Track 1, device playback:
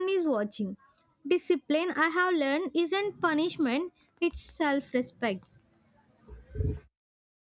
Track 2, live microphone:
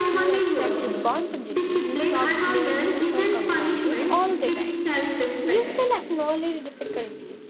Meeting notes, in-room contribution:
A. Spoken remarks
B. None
A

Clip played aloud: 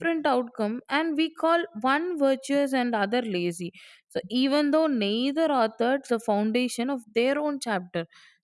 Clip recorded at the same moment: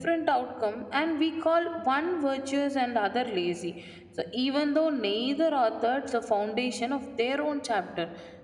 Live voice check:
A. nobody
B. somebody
A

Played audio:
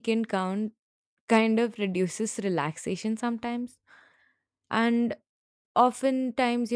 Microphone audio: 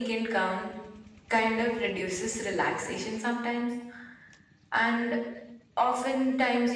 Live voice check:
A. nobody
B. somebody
A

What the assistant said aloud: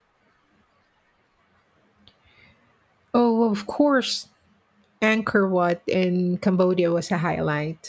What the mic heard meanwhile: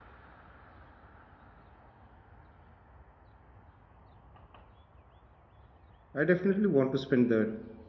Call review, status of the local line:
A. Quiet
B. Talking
B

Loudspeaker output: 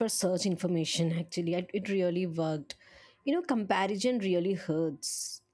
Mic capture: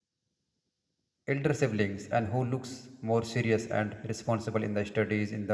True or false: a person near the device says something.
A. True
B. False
A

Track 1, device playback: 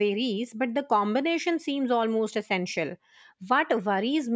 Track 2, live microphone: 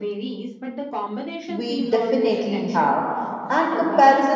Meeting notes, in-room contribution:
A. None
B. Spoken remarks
B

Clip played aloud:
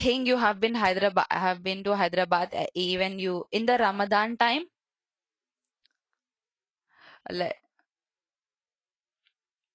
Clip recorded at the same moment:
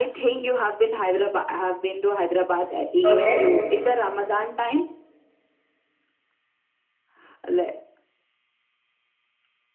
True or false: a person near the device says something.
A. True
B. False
A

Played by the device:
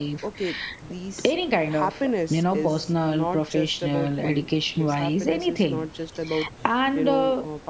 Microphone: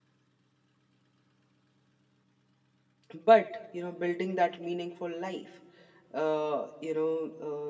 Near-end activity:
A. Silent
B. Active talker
B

